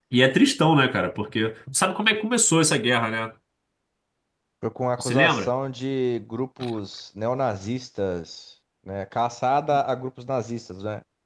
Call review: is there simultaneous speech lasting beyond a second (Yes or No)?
No